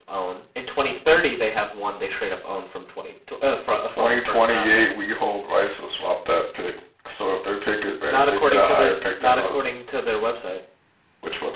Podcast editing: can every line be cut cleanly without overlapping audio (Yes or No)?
No